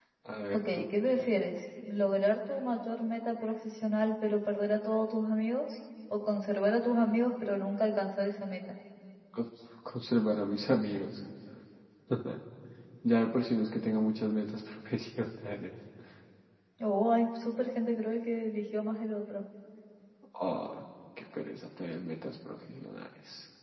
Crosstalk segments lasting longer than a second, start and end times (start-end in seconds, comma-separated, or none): none